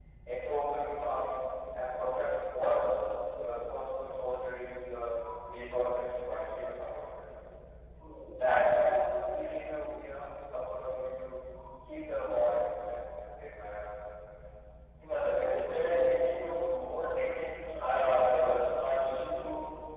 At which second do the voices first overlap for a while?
none

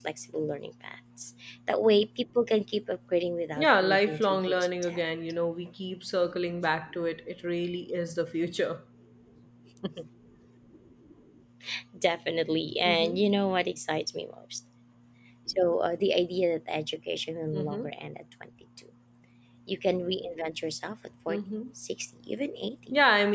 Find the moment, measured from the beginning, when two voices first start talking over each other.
4 s

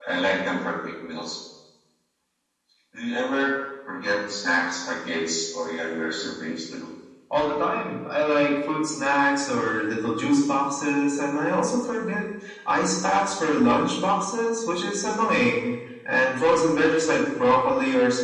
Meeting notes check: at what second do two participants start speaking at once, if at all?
none

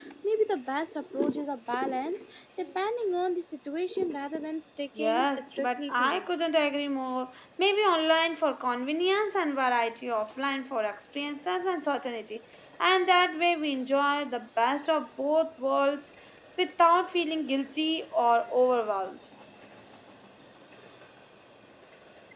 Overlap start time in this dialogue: 5 s

